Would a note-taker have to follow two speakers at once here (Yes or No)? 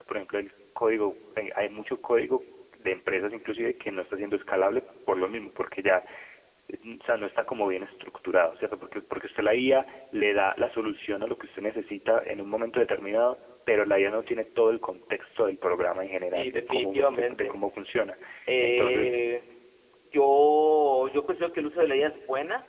Yes